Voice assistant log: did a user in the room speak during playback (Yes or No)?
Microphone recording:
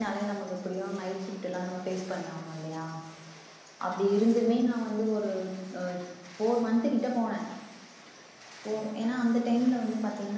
Yes